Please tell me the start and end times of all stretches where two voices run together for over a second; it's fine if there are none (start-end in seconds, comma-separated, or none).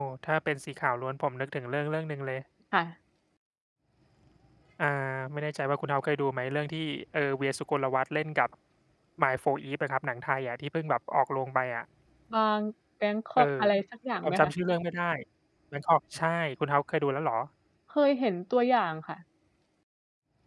none